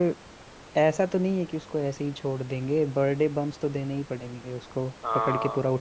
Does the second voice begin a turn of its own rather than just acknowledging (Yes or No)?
Yes